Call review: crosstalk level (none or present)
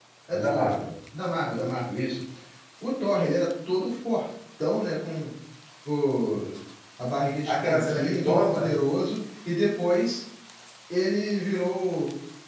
present